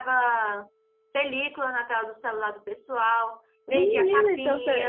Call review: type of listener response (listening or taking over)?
taking over